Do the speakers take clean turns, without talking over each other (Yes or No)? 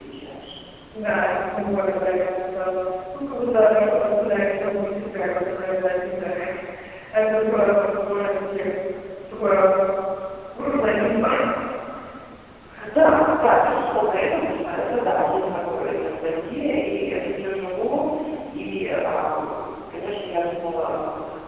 Yes